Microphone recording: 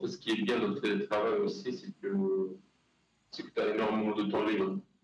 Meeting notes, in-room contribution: none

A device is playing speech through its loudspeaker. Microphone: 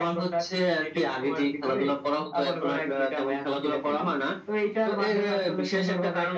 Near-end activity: none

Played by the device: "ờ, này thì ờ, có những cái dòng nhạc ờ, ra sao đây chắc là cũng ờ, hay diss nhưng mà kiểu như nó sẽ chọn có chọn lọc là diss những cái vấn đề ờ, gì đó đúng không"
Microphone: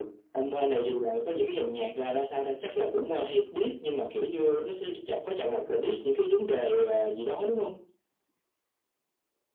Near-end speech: none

